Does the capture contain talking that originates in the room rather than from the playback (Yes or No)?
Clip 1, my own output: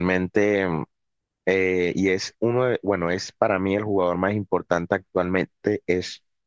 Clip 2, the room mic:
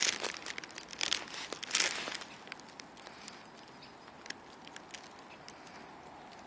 No